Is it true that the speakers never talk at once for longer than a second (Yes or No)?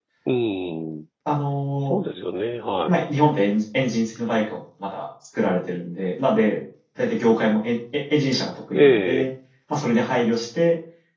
Yes